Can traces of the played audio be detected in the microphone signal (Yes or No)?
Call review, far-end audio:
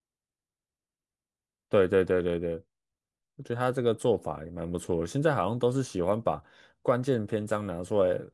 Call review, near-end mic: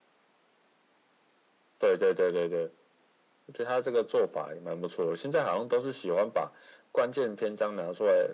Yes